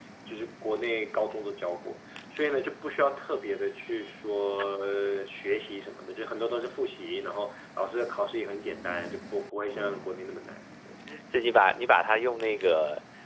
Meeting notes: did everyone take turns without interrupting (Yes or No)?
Yes